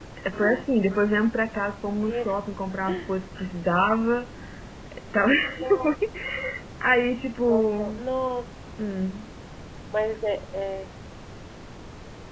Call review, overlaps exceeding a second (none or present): none